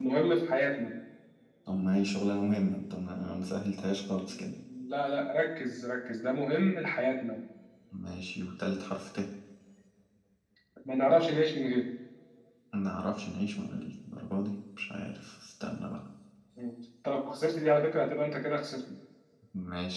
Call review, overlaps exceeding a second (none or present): none